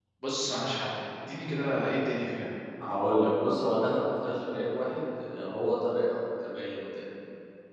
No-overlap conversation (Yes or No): Yes